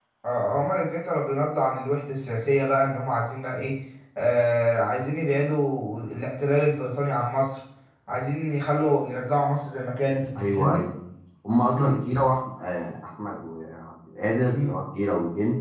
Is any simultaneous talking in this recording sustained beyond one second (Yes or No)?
No